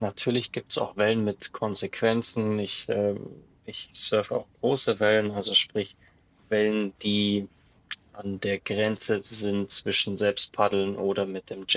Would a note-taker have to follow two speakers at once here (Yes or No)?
No